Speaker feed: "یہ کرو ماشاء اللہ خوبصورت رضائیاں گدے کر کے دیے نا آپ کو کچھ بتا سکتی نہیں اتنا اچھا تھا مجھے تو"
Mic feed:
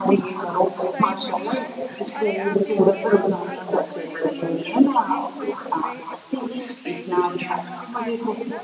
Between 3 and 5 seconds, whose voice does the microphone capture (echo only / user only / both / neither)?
both